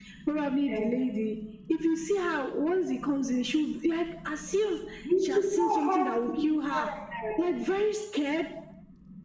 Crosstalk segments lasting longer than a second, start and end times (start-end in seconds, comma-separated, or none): 5.2-6.9